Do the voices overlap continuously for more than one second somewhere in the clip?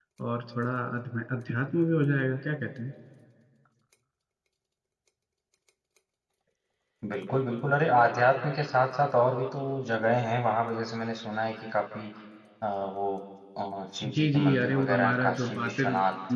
Yes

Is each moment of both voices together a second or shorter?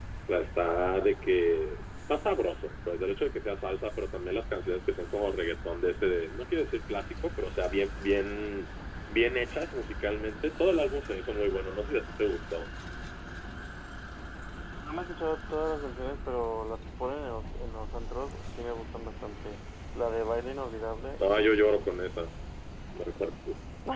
Yes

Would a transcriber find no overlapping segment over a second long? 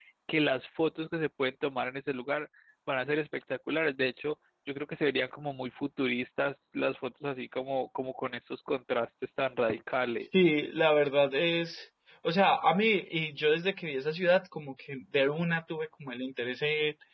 Yes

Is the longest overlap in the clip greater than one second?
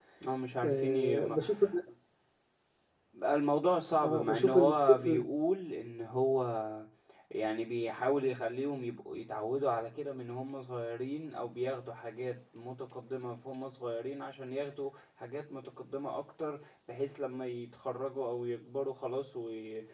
Yes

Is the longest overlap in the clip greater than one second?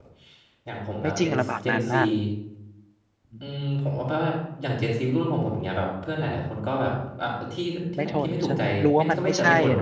Yes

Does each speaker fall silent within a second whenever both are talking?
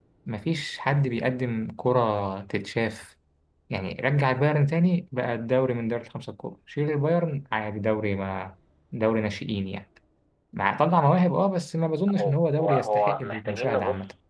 No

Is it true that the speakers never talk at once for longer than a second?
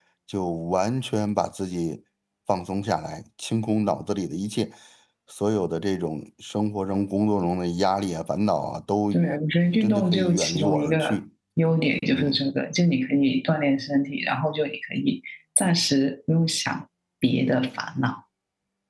No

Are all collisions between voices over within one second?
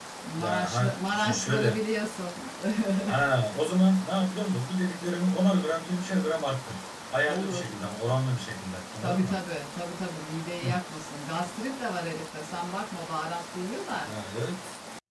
No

